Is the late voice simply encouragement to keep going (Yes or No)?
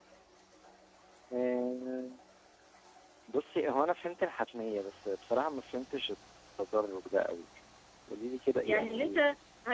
No